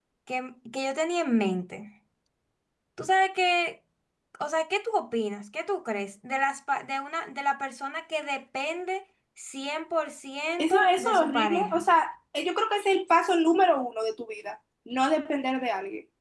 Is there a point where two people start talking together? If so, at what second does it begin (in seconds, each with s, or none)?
10.6 s